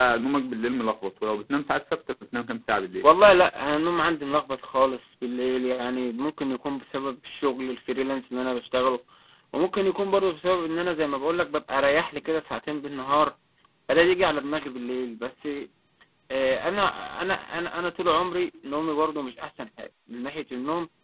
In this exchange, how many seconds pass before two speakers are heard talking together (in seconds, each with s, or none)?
none